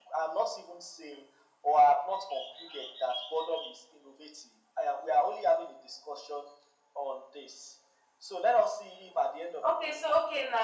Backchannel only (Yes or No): No